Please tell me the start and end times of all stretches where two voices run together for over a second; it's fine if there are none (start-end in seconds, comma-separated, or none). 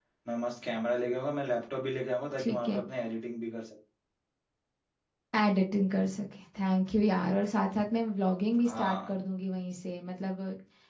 none